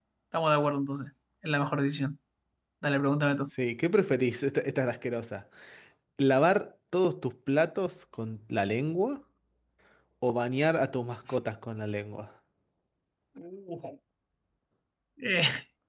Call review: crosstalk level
none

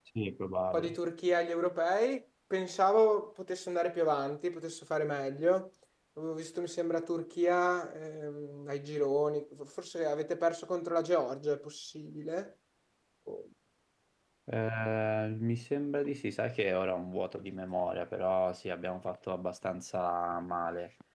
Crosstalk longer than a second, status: none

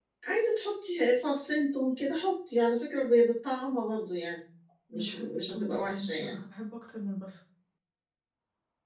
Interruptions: present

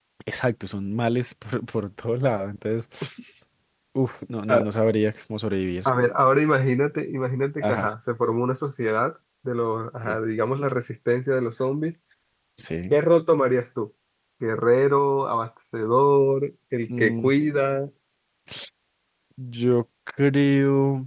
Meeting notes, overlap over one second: none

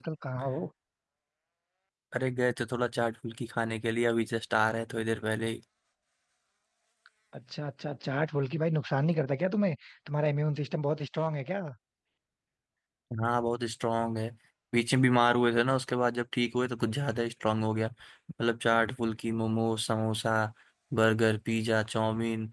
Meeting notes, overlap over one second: none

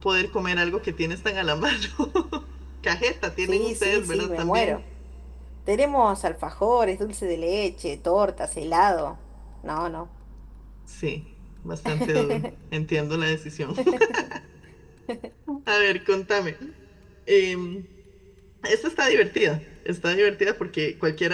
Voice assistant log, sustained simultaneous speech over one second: present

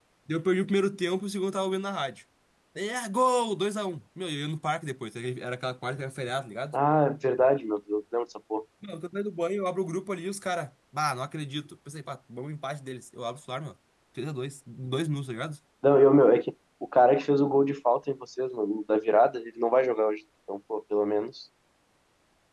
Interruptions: none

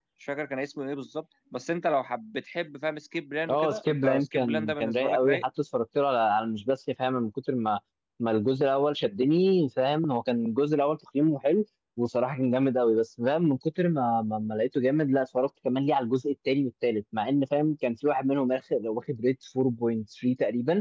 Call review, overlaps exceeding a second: present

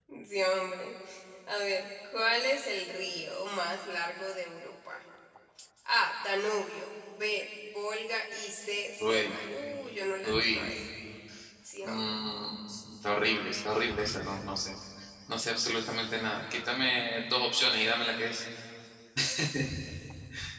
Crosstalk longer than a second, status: none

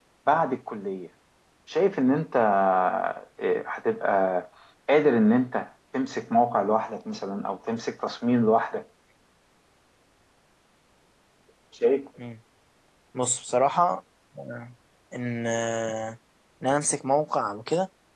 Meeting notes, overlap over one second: none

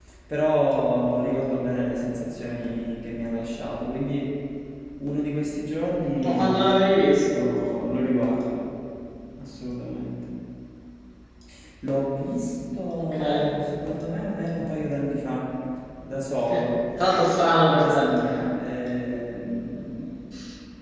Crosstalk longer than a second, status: none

